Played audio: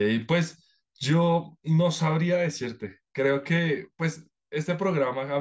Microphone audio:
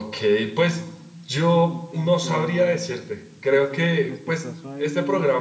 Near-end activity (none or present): present